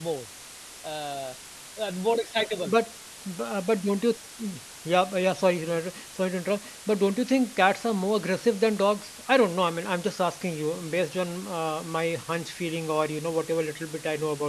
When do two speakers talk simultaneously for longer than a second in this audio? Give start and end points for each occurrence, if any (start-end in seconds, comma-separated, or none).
none